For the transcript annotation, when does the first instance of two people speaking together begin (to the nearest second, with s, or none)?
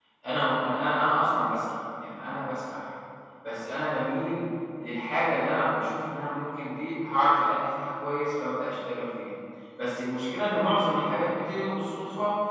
none